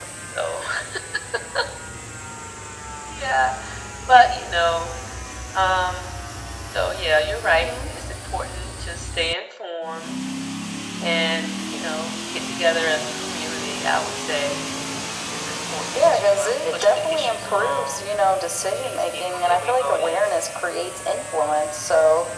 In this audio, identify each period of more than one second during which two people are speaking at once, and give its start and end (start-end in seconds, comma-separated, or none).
15.9-18.0, 18.8-20.2